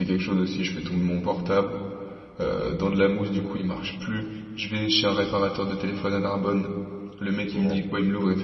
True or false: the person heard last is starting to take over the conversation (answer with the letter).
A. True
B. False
B